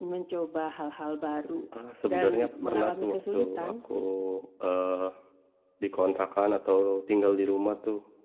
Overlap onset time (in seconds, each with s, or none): 2.0 s